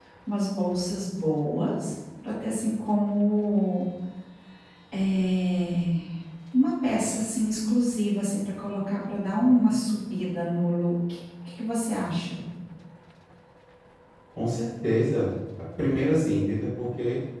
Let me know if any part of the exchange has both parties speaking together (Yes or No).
No